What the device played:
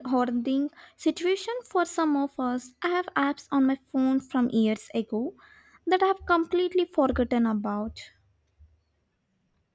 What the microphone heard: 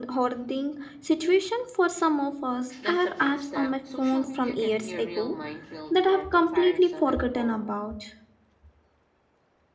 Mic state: both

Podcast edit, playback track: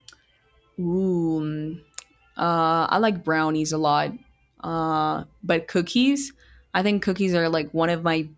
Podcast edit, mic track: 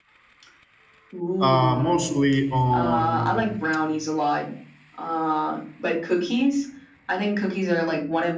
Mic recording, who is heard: both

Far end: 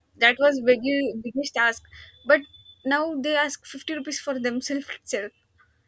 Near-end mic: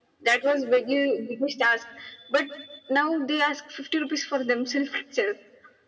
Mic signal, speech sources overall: echo only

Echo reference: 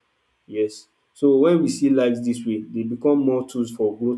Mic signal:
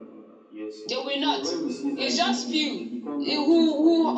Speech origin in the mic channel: both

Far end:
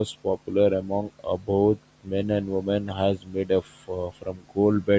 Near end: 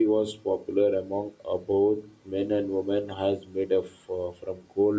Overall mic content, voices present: echo only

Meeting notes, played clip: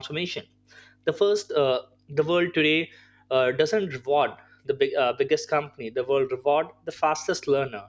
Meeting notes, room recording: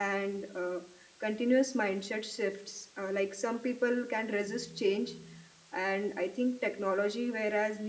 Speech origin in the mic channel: user only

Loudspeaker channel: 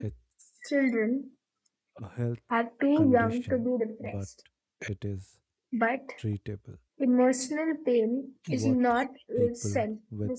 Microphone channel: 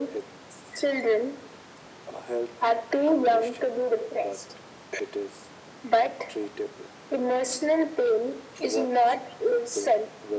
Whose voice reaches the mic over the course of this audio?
echo only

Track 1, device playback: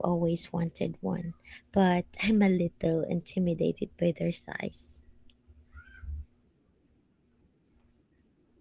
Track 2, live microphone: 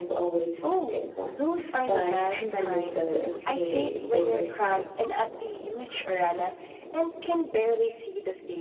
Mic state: both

